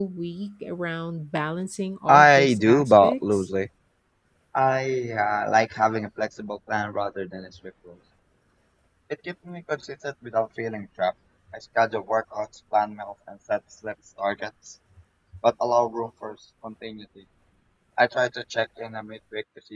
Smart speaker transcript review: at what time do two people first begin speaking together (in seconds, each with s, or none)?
2.1 s